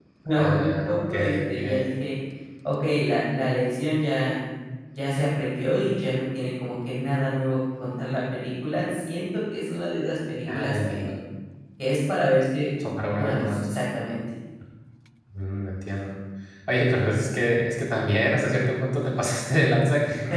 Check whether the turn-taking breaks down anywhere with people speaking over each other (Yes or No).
Yes